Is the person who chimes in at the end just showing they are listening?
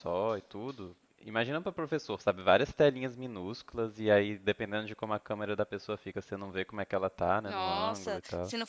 No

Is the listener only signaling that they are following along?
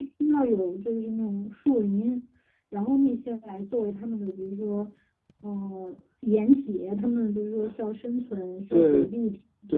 No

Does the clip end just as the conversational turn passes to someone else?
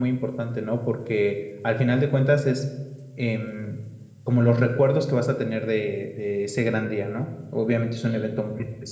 No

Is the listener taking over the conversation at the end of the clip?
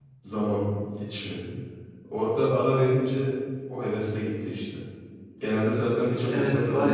Yes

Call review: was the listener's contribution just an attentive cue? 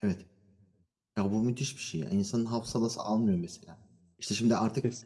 Yes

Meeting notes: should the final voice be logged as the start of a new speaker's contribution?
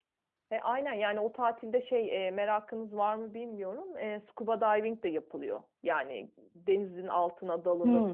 Yes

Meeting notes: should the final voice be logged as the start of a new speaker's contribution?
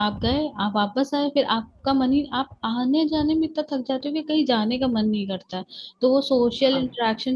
No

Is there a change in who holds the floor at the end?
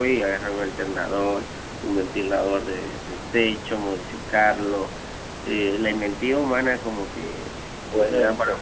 No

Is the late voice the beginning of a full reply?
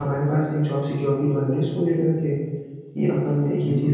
Yes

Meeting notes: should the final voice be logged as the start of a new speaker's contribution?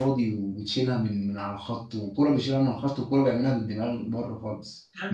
Yes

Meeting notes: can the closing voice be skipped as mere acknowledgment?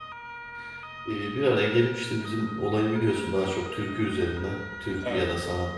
Yes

